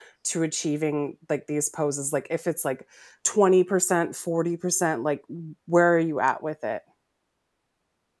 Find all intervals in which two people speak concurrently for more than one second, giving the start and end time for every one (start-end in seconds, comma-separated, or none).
none